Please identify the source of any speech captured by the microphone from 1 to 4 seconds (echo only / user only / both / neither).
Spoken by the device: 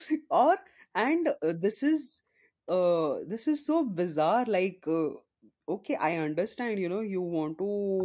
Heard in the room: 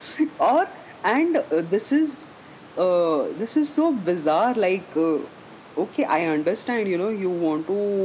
echo only